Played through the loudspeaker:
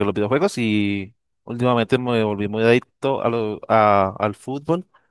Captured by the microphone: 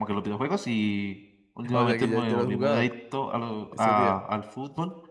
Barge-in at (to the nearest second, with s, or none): 2 s